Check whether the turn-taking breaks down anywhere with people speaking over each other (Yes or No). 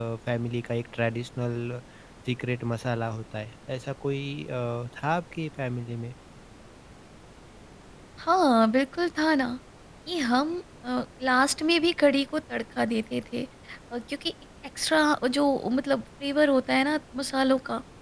No